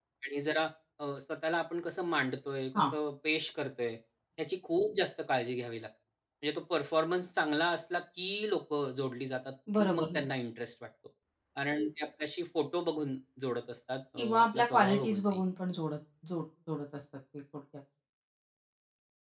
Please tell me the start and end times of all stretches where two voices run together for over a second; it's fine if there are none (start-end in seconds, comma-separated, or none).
14.2-15.4